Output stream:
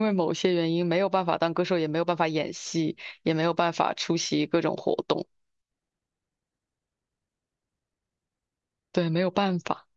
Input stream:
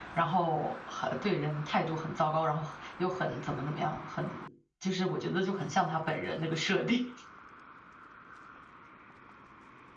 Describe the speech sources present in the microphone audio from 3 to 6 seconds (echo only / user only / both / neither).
user only